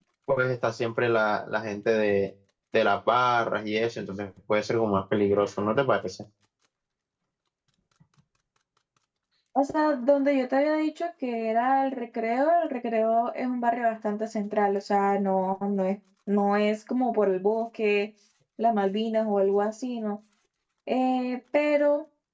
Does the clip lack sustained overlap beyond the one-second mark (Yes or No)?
Yes